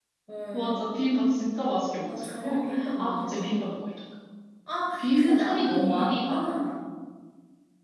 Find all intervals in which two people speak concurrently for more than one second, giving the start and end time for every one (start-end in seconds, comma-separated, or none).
2.0-3.5, 5.0-6.5